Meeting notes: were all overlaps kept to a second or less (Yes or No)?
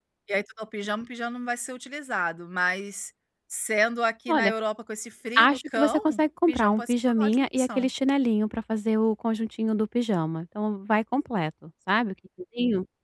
No